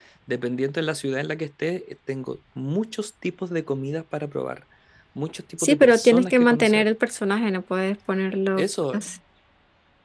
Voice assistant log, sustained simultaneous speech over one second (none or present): present